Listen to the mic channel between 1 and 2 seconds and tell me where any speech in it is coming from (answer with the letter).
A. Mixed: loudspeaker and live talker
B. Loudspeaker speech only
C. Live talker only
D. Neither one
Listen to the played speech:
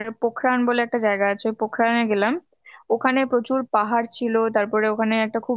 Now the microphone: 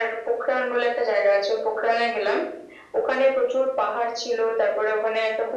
B